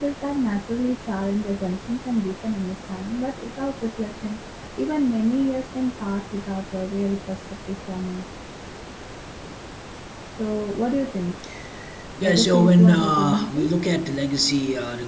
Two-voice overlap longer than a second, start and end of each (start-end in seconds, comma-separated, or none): 12.2-13.7